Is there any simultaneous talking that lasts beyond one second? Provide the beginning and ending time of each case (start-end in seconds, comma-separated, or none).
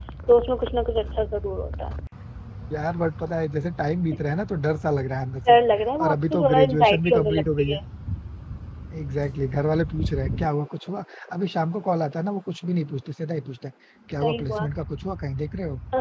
6.0-7.8